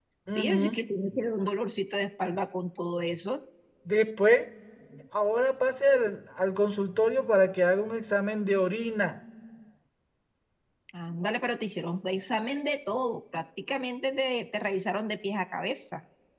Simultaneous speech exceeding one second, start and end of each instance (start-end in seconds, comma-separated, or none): none